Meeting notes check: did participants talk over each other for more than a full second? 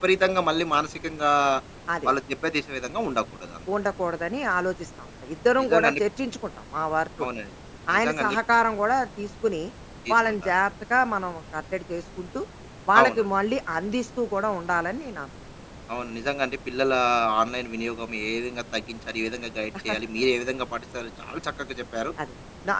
No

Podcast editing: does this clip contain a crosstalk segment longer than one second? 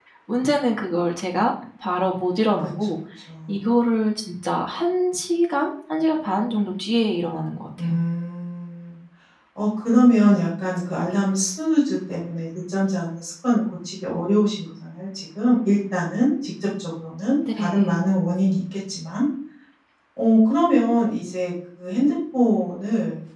No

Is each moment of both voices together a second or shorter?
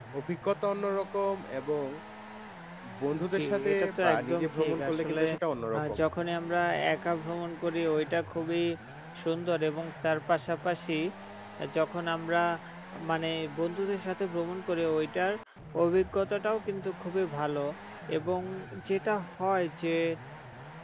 No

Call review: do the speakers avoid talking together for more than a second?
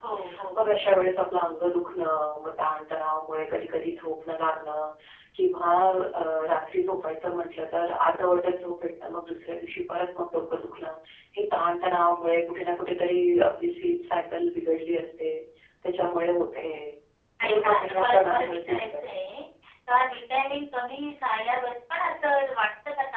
No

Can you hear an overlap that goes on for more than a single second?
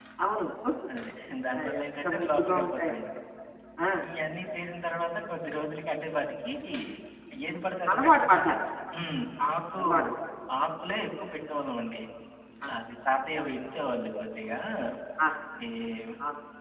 Yes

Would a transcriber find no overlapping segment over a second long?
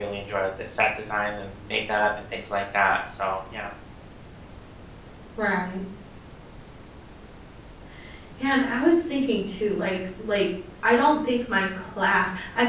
Yes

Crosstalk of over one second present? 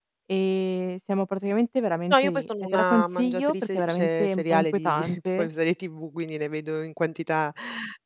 Yes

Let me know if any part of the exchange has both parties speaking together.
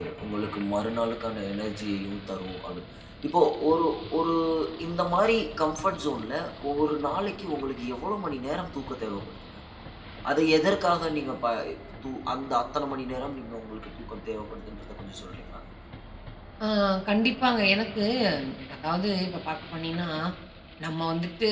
No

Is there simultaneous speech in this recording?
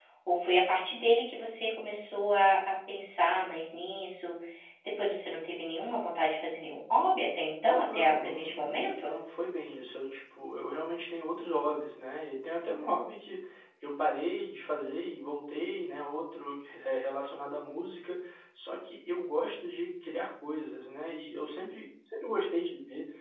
Yes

